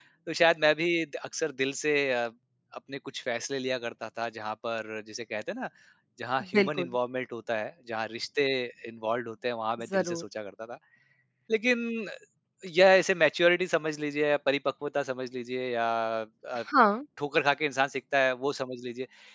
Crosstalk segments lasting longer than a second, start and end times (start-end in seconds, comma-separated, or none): none